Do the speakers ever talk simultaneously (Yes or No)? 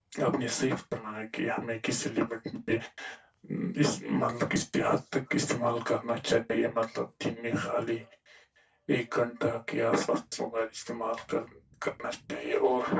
No